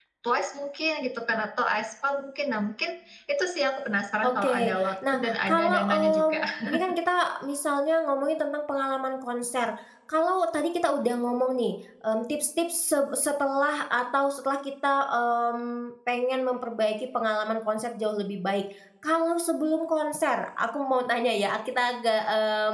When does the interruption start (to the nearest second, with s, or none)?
4 s